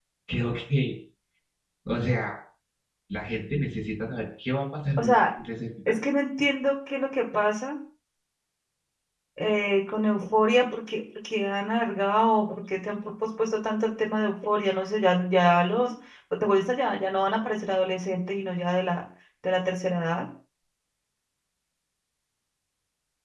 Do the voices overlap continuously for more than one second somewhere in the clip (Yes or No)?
No